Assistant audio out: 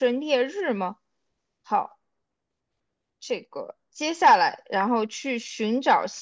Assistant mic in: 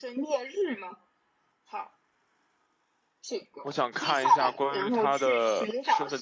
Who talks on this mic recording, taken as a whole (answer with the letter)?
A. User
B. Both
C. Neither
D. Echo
B